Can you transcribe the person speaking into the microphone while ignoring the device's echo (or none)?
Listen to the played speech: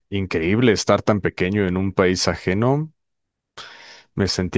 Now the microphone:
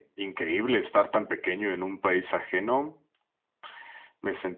none